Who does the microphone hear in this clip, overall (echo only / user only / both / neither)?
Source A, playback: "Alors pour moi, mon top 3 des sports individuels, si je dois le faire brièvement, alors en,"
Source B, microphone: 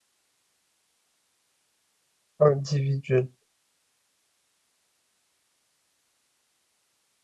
user only